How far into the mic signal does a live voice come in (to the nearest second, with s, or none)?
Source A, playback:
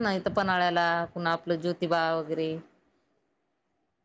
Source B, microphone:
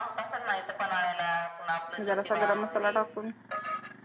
2 s